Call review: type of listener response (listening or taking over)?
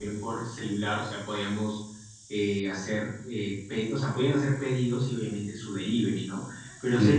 listening